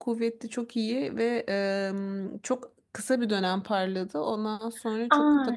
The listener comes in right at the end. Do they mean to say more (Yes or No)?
Yes